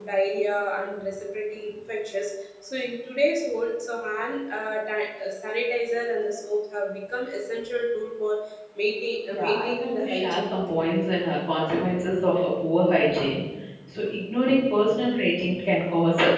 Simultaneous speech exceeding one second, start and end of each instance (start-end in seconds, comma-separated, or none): 9.3-10.8